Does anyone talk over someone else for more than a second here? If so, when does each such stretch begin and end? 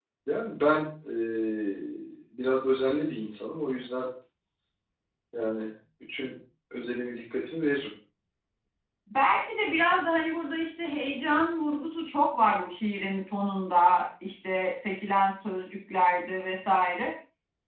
none

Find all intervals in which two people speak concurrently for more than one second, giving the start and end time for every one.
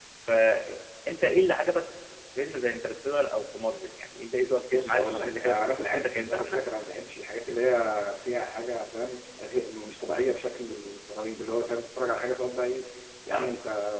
4.7-6.6

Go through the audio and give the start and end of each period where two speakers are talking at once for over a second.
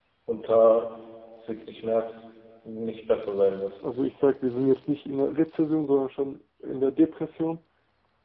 none

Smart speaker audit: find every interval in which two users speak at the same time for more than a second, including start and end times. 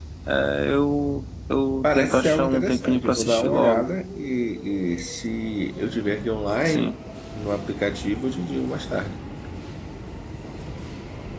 1.8-3.8

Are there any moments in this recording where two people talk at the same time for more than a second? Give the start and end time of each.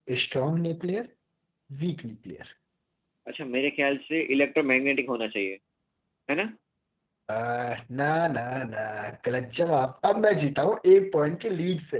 none

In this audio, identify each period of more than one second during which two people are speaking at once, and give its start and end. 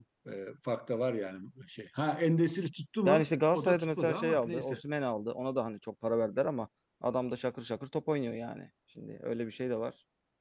3.0-4.8

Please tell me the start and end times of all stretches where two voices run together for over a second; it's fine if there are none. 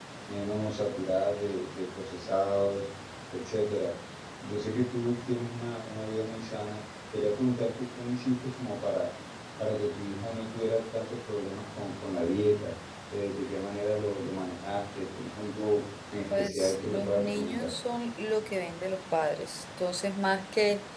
16.4-17.7

